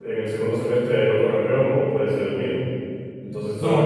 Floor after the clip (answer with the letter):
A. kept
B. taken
A